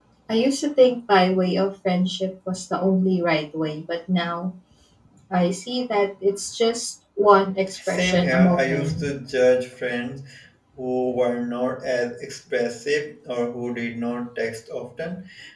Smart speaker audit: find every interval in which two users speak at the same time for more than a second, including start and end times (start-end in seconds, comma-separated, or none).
7.9-9.1